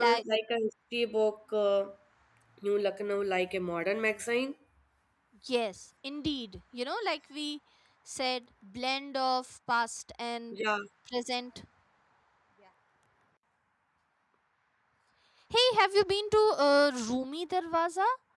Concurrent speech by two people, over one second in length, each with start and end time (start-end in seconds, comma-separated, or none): none